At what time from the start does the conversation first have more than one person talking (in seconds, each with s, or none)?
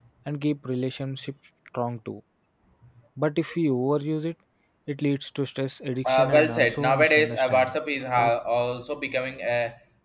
6.0 s